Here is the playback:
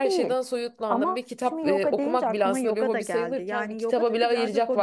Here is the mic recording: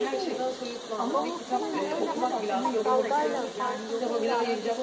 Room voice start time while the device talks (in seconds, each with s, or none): 1.1 s